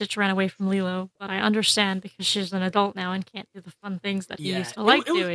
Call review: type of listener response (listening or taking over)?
taking over